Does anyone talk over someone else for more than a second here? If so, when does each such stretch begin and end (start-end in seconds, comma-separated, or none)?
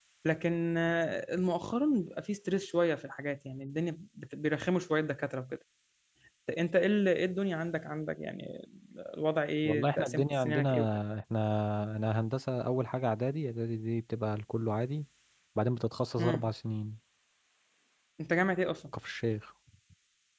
9.7-10.8